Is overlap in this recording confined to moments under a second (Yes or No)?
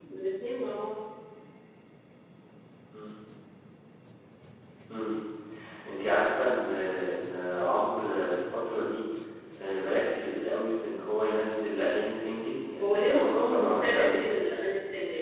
No